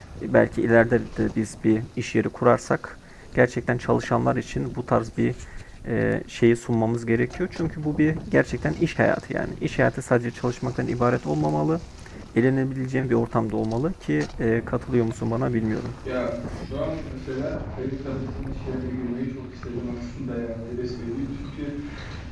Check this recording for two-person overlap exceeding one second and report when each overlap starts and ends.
none

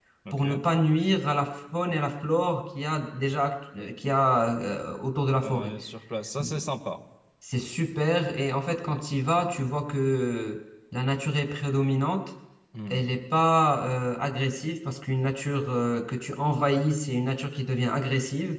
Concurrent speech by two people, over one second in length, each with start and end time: none

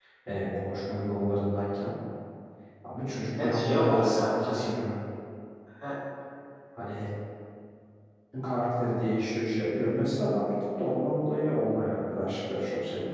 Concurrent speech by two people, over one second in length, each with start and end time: 3.4-4.7

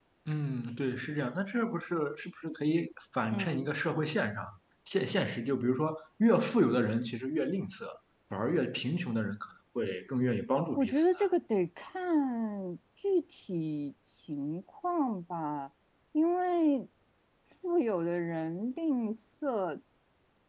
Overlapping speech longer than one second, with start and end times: none

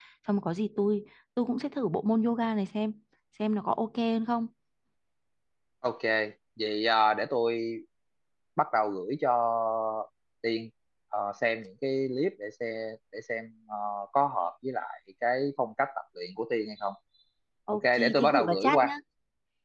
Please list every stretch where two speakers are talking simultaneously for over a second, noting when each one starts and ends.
17.7-18.9

